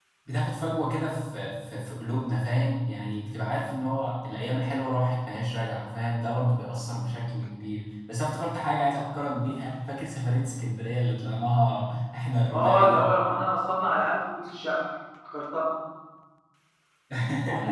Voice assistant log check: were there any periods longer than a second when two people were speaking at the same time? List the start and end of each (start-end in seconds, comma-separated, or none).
none